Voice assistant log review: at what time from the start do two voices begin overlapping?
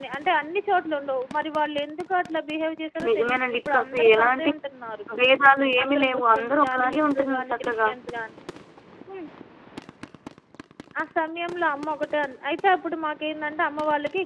3 s

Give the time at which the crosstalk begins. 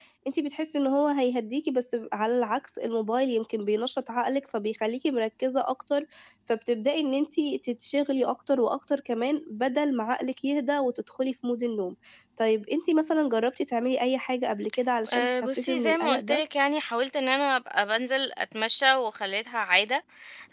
15 s

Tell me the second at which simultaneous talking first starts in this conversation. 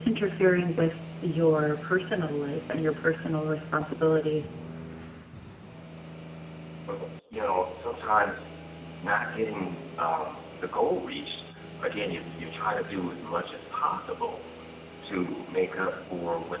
none

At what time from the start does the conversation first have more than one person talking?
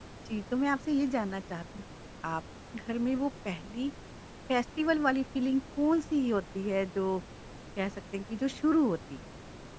none

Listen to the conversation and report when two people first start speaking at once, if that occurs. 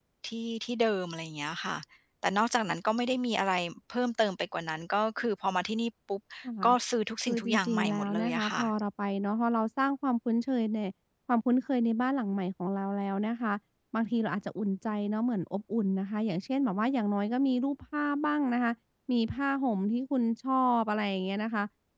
7 s

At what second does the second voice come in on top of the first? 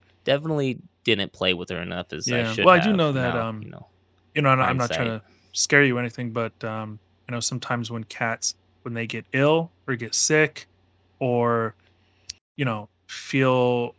2 s

